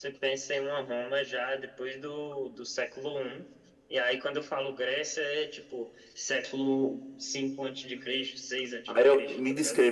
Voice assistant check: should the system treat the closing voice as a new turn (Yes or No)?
Yes